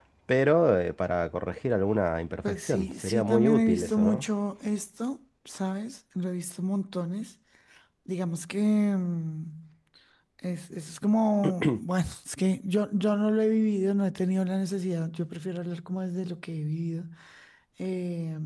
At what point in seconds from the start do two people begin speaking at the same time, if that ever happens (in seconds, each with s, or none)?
2.4 s